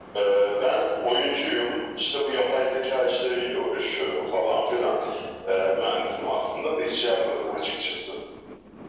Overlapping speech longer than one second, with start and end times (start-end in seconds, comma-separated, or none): none